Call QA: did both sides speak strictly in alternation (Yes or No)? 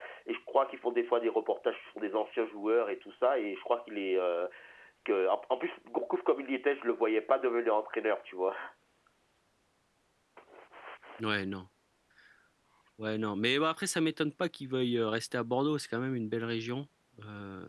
Yes